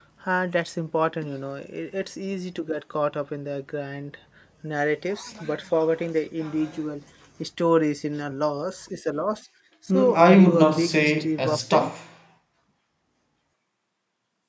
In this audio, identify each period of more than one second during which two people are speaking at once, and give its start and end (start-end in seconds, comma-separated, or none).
9.9-11.9